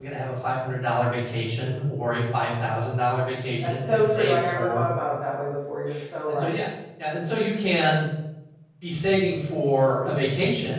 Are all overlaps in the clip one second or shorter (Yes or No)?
No